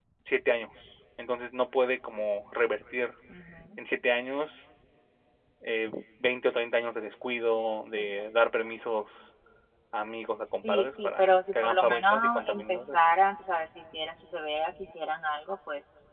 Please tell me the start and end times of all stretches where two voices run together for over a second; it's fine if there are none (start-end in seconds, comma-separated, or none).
10.6-13.0